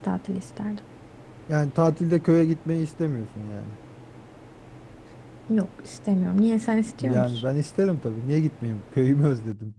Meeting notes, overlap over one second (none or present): none